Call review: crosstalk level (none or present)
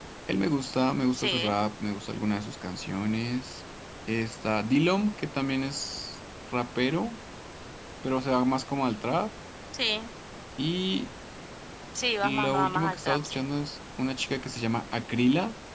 present